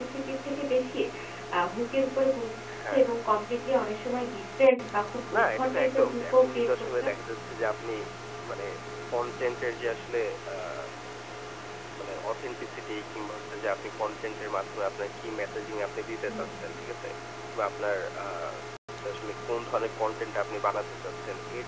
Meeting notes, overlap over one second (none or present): present